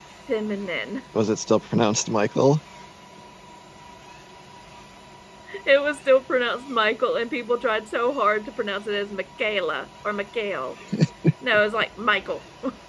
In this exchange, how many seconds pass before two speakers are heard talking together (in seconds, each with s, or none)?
none